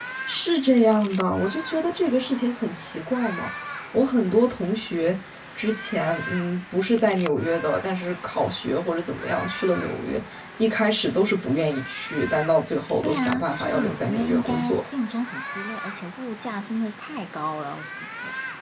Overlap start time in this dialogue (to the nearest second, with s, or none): 13 s